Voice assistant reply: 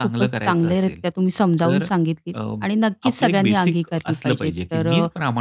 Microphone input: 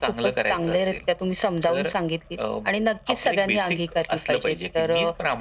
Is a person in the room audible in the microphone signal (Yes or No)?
No